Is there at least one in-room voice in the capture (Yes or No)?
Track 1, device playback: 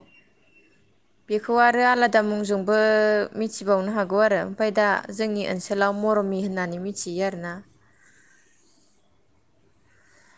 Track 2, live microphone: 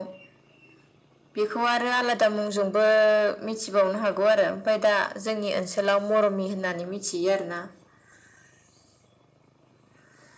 No